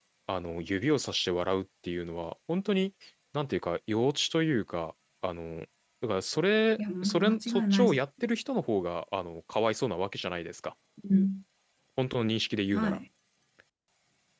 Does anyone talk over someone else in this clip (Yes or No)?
Yes